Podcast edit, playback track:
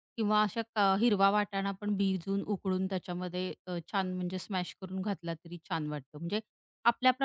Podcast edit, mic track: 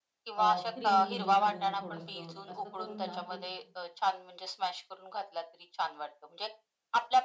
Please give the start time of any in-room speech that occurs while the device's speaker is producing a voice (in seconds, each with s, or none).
0.3 s